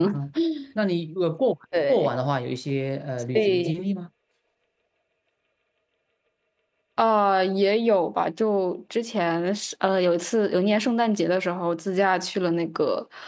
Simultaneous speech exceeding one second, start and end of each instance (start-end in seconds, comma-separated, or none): none